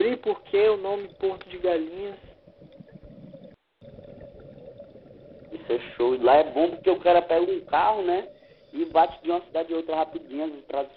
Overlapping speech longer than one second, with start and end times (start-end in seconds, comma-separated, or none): none